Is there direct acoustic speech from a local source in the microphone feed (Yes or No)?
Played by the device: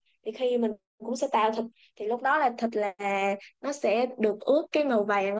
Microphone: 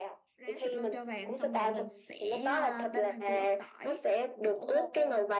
Yes